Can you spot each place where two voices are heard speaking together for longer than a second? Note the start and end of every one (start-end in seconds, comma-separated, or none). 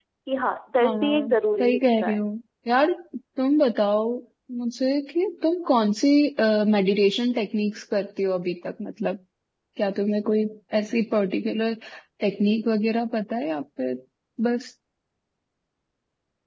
0.8-2.2